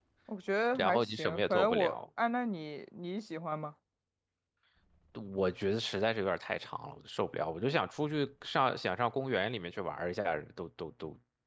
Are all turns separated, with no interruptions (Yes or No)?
No